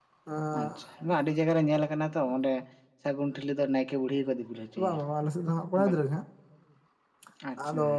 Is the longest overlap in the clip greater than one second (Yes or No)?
No